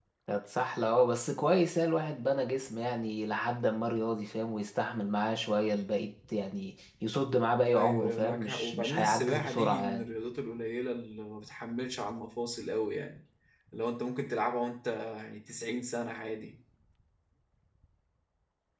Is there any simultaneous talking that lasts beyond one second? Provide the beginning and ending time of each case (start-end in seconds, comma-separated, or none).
7.7-10.0